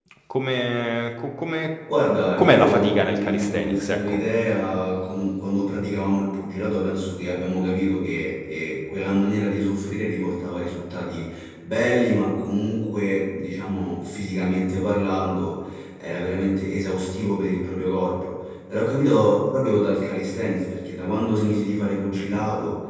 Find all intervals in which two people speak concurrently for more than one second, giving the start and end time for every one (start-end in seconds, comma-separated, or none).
2.4-4.2